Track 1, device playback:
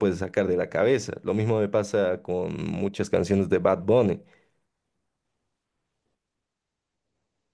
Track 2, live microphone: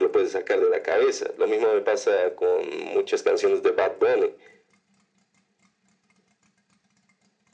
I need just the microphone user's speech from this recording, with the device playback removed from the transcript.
none

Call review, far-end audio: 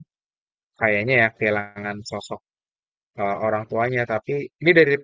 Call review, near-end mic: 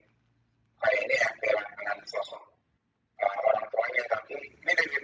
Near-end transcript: none

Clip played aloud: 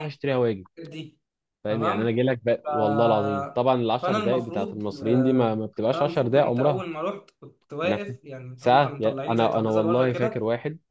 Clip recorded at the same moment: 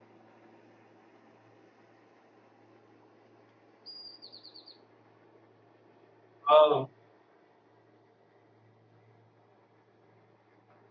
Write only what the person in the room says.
آه.

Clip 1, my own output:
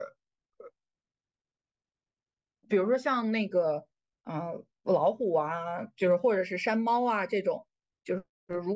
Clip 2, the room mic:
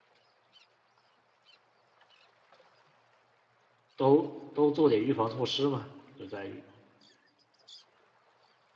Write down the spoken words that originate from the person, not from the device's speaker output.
都都做点预防措施嘛，就在于，

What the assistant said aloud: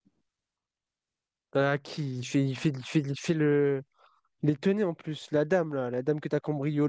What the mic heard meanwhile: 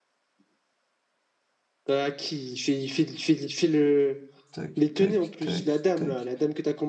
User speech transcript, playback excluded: Tac, tac, tac, tac.

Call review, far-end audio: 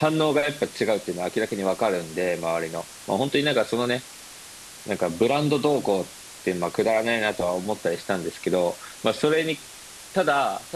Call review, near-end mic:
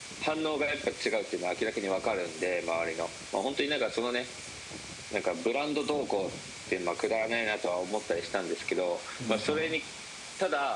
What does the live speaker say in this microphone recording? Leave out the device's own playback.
で、なんか、

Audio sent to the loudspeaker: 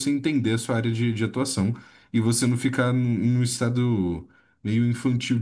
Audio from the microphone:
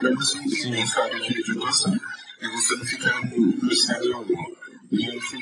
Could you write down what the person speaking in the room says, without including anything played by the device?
Sim.

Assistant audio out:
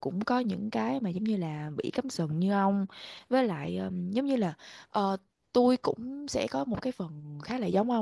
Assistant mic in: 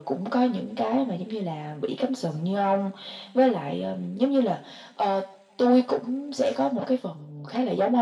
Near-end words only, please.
none

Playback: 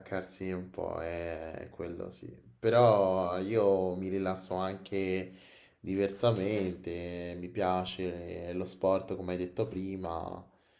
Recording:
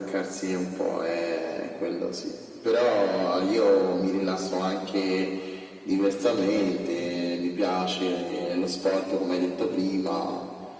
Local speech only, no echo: none

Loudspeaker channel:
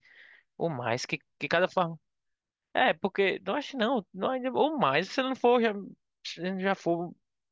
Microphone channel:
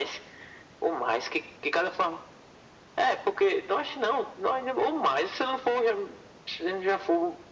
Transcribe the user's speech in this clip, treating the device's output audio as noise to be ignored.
none

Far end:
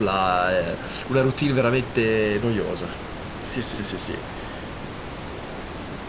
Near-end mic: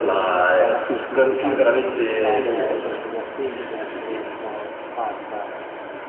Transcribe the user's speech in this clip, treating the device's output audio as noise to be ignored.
mm, è una sitcom, diciamo, lo scopo principale è essere divertente, essere un po' simpatica,

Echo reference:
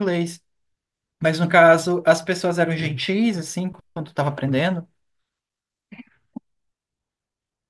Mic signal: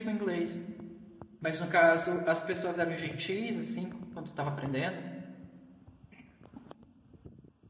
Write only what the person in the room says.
none

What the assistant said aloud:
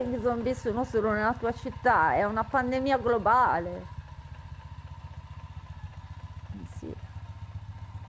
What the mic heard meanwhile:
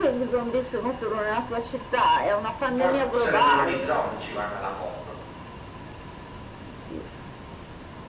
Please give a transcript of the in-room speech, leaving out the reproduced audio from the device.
forse nemmeno gli zombie ci vanno alla COP,

